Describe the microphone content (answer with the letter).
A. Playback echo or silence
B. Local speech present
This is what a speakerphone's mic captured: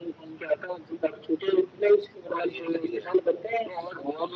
A